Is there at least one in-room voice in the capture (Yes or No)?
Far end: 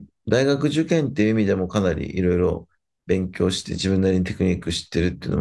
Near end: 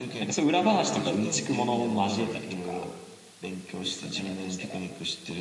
Yes